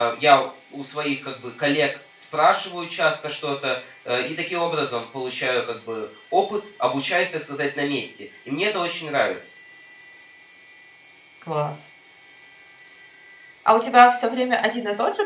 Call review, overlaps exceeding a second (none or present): none